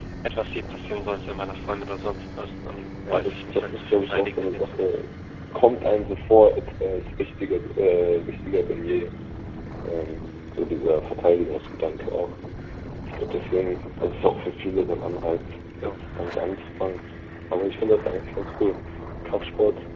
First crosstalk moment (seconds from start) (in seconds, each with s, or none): 3.1 s